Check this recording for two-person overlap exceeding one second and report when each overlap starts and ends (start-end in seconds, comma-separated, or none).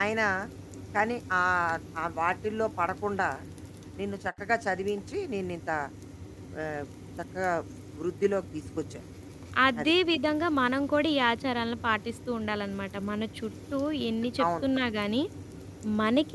none